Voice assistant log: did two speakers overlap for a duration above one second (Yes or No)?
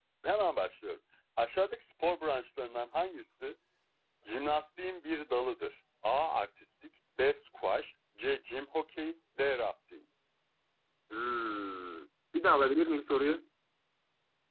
No